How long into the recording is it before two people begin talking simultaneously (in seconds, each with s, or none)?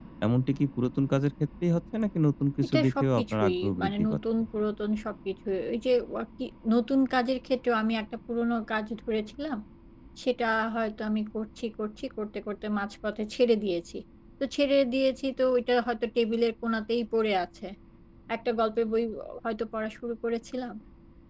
2.6 s